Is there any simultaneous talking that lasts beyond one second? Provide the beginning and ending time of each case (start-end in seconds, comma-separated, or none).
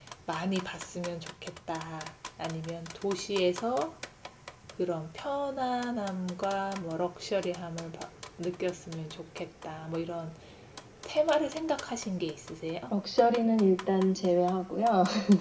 none